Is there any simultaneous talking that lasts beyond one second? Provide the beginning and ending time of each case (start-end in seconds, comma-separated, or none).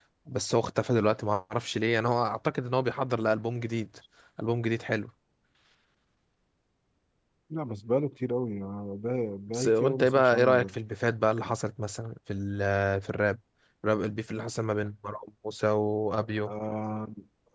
9.5-10.8